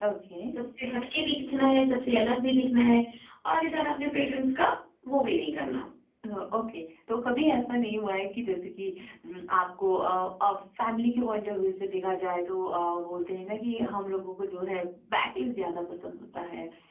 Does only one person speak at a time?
Yes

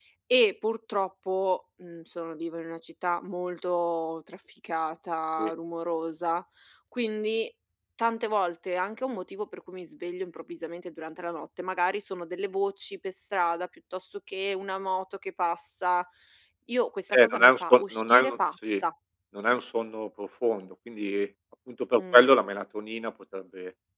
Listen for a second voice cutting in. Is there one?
Yes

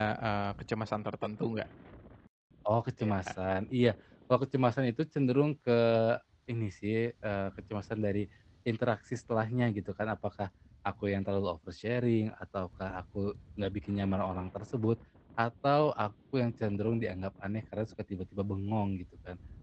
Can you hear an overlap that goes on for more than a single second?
No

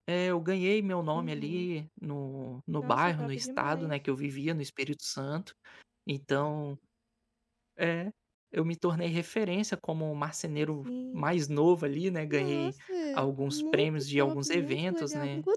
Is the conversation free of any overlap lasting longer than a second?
No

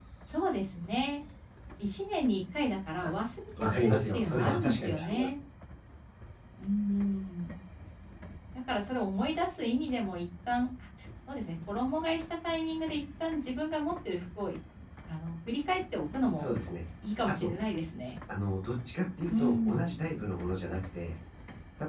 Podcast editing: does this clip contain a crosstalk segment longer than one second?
Yes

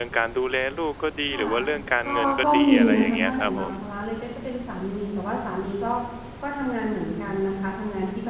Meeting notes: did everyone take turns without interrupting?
No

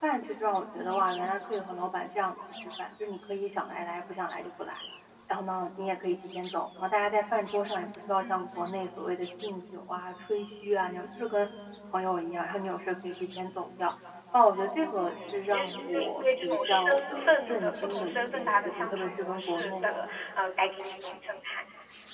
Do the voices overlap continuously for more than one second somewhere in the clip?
Yes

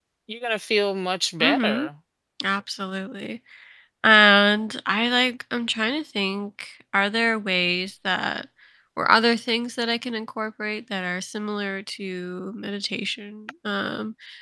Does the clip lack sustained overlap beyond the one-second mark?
Yes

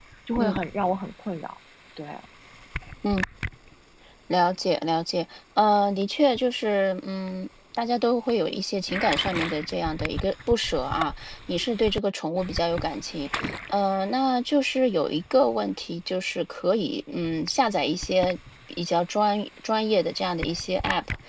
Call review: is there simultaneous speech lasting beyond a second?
No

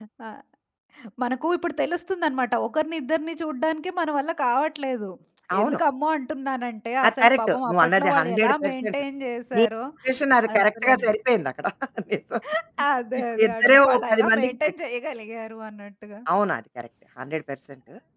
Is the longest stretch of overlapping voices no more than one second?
No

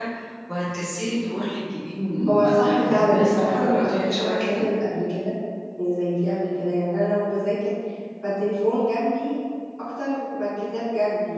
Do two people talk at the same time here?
Yes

